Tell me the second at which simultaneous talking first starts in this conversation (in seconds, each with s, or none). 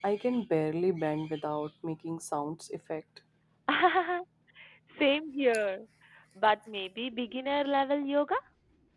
none